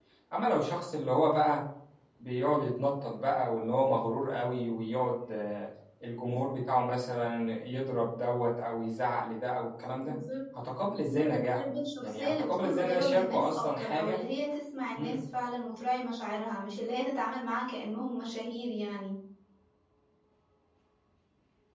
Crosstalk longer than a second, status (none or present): present